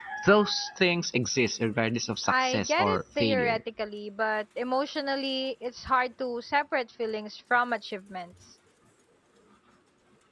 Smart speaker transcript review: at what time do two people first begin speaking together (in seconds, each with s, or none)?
2.3 s